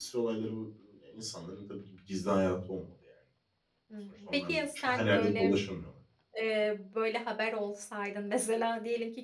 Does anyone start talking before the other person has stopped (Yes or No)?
Yes